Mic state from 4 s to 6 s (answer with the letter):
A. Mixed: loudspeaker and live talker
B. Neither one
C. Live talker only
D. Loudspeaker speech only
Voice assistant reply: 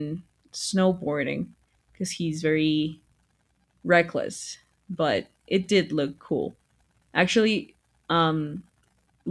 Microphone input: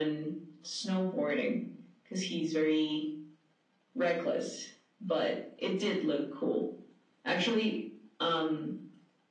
D